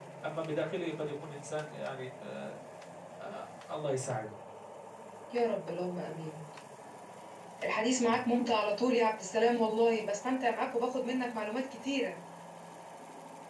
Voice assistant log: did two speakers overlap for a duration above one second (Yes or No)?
No